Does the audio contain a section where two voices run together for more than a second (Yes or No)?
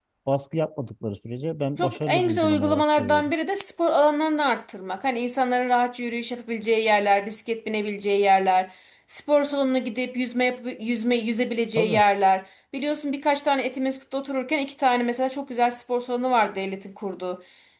Yes